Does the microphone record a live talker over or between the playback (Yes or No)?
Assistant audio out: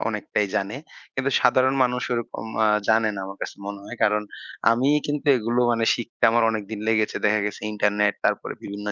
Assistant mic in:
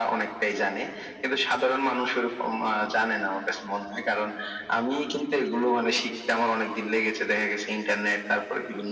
No